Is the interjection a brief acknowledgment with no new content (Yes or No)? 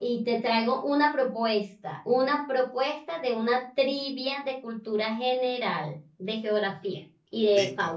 No